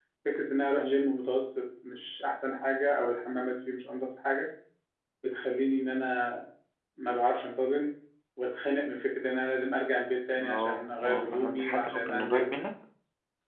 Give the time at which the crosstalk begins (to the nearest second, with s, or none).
10 s